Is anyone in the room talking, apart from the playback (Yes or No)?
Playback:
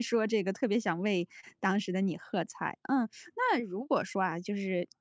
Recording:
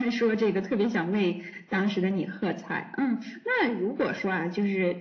No